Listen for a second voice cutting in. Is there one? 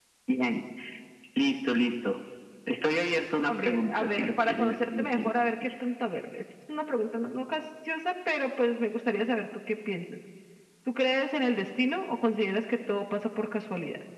Yes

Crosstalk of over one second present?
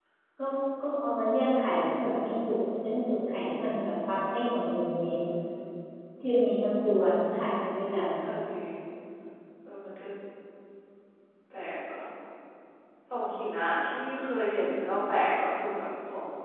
No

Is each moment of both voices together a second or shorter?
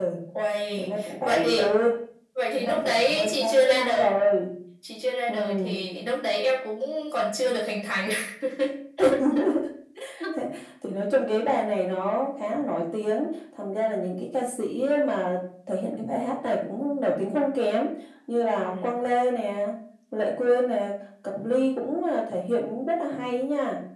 No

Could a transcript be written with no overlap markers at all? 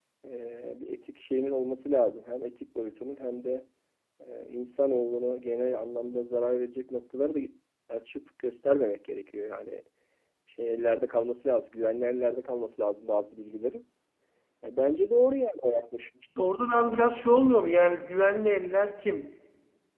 Yes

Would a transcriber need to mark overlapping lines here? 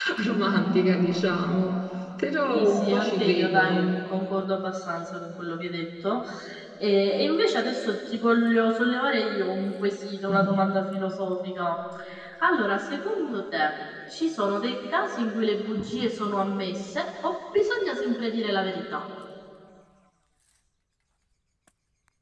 Yes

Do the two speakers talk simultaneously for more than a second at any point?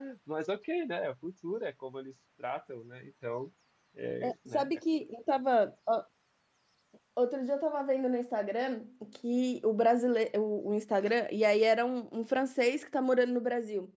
No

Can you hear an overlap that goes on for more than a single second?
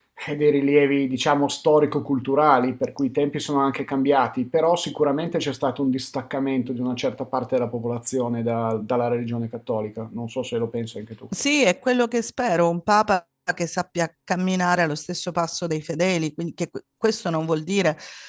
No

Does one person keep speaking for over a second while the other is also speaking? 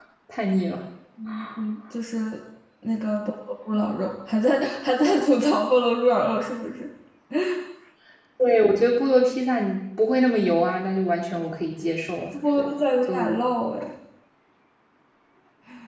No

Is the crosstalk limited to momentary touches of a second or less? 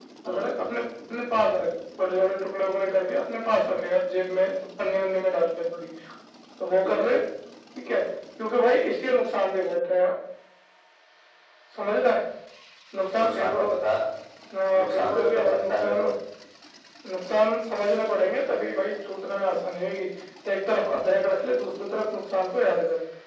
No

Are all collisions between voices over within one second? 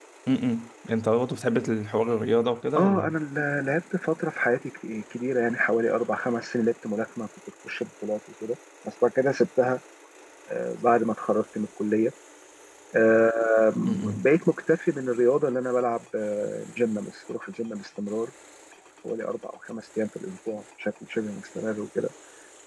Yes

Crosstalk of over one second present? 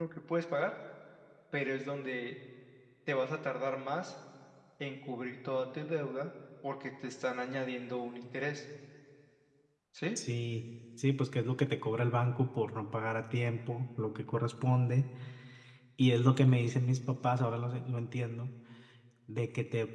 No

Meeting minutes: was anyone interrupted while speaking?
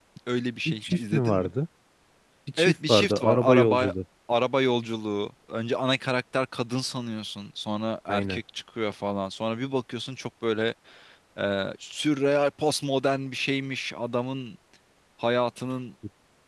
Yes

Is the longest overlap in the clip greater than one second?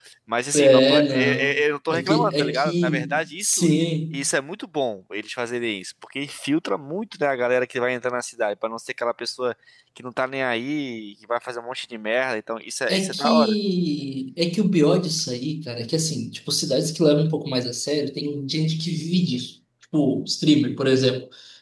Yes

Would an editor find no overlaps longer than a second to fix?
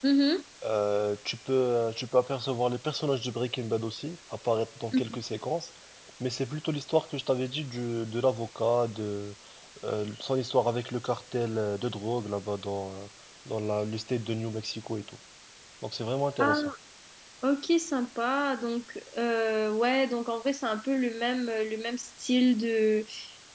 Yes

